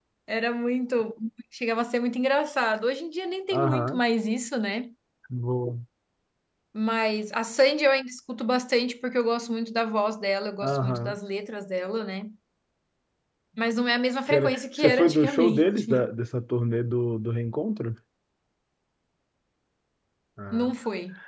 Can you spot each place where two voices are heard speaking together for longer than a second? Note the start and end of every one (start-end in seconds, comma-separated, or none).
14.3-16.1